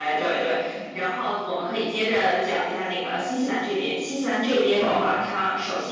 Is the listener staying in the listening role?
Yes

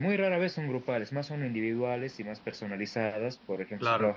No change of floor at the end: Yes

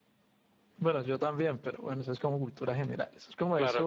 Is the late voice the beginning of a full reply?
No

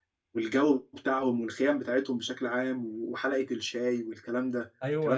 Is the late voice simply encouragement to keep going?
No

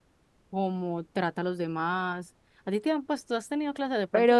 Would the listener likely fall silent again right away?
No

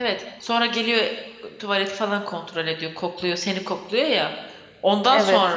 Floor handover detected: No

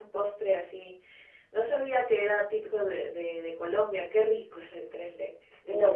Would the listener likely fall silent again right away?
No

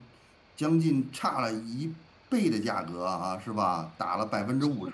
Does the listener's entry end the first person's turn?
Yes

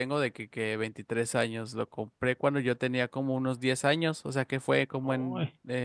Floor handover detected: No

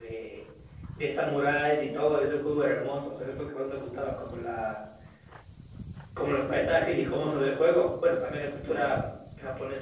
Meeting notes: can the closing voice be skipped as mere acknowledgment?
Yes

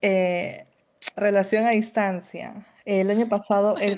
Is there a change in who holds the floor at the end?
No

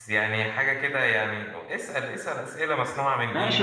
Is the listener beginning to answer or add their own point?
Yes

